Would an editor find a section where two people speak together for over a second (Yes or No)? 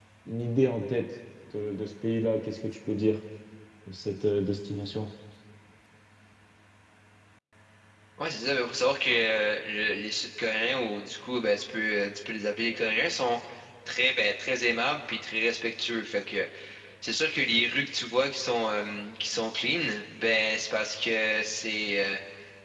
No